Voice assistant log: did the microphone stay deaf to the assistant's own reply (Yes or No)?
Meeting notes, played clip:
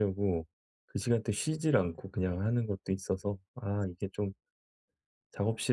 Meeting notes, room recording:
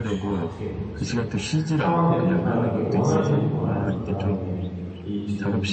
No